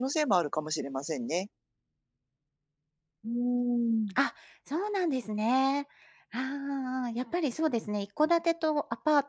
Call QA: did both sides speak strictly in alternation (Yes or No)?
Yes